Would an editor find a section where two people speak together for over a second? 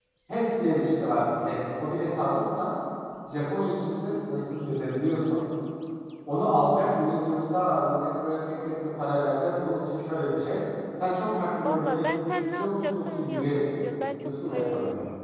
Yes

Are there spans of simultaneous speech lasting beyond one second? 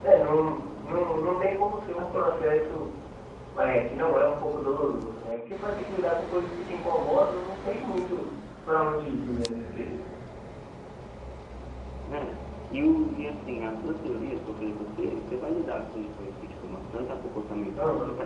No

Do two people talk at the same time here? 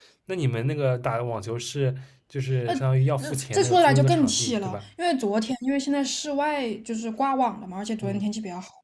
Yes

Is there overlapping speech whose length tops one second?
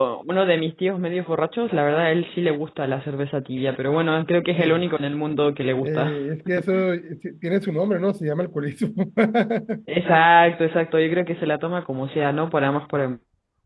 No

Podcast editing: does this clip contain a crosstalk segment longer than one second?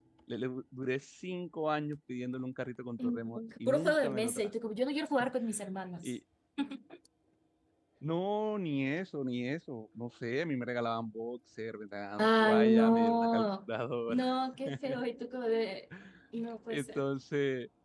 Yes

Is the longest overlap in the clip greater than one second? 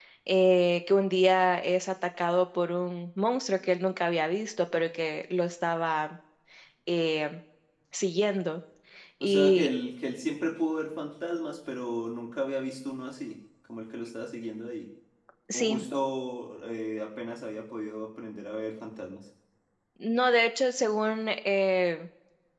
No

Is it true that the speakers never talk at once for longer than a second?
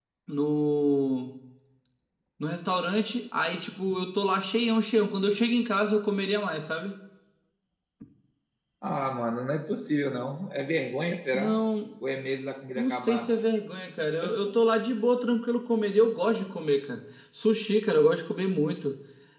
Yes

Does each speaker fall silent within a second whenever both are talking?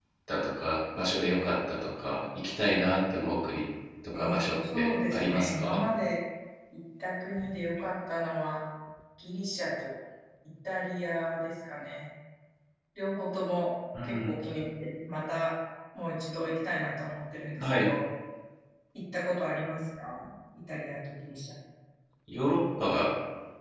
No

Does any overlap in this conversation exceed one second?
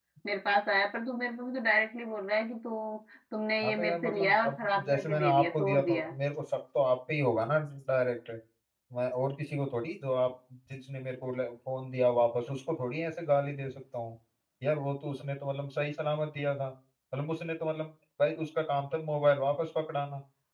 Yes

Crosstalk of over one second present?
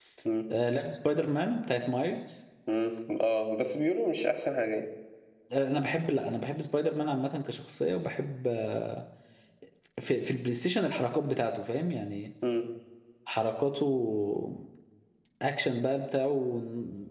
No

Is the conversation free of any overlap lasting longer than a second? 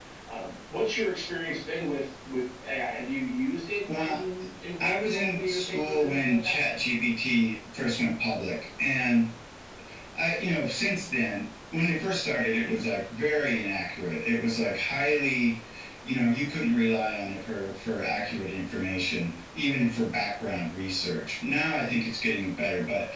No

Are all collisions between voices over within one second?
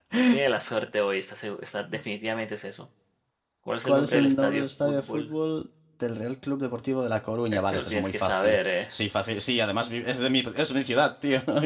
No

